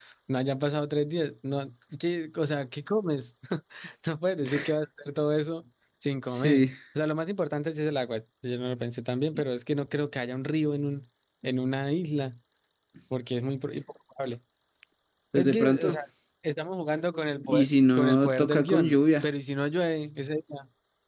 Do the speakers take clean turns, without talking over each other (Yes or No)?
No